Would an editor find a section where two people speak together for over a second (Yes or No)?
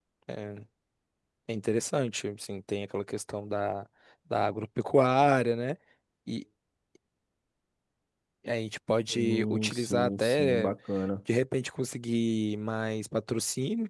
Yes